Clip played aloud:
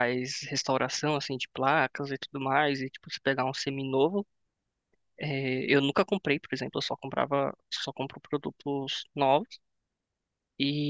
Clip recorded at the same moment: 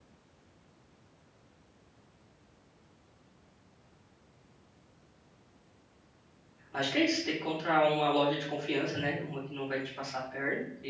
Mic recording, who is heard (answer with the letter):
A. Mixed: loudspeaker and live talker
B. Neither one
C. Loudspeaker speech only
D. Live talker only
D